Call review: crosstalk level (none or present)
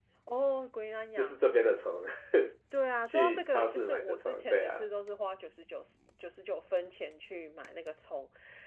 present